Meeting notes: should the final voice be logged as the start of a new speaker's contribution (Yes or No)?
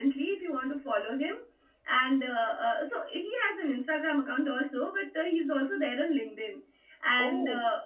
No